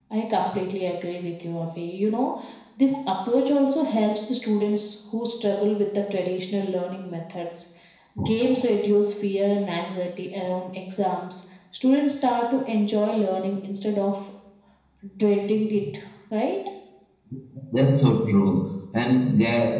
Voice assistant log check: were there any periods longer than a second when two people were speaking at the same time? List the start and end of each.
none

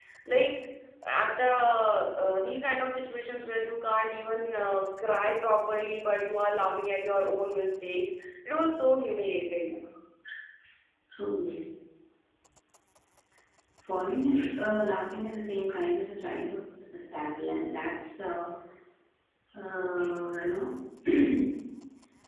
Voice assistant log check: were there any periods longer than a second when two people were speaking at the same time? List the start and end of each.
none

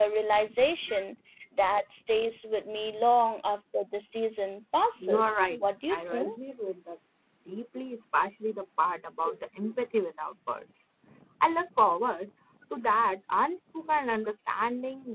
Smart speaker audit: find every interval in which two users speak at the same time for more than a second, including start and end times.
5.0-6.3

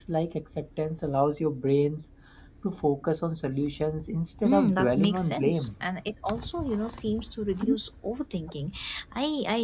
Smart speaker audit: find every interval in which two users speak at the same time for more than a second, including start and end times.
4.4-5.7

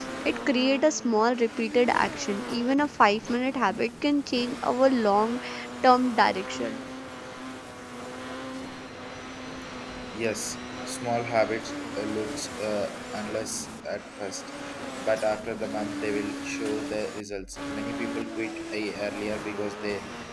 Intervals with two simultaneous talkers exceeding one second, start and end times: none

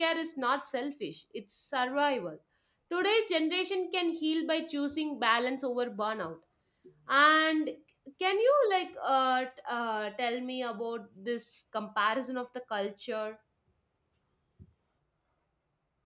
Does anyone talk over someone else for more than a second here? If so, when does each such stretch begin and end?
none

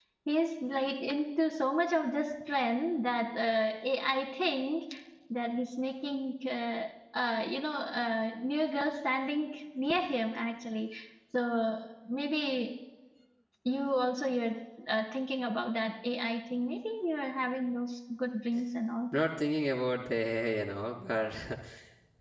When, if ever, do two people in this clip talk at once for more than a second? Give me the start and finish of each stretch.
none

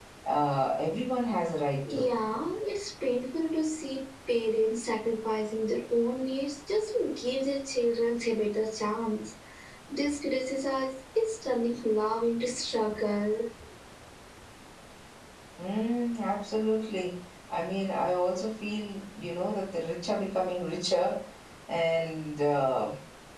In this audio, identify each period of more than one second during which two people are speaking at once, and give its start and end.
none

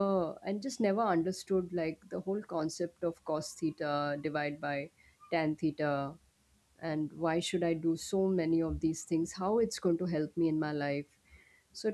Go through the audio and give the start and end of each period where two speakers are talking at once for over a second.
none

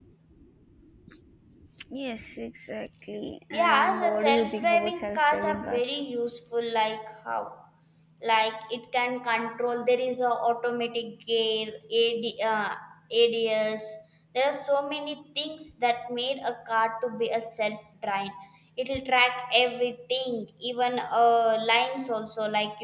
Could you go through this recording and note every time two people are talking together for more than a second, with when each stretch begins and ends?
3.5-5.8

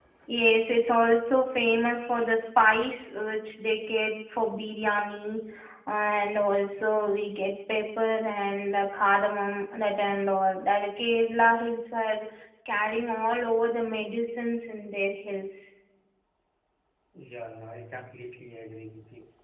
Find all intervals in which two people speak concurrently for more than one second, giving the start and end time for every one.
none

